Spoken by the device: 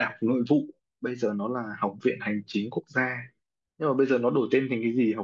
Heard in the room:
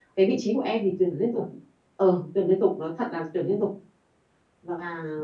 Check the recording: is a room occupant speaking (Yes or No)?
Yes